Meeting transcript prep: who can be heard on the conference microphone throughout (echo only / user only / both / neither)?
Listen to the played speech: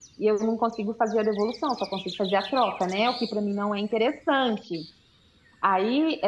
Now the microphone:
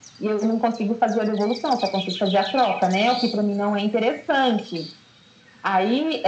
echo only